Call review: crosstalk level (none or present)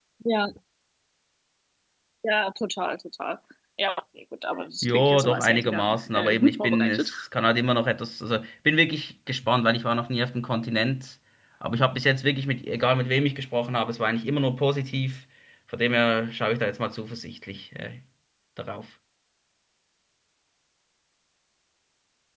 present